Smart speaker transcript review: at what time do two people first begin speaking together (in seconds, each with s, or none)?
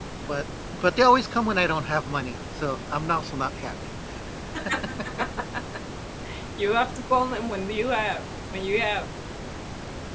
none